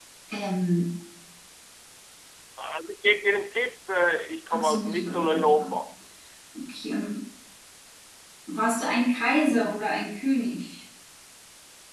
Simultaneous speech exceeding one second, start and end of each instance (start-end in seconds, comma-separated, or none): 4.5-5.7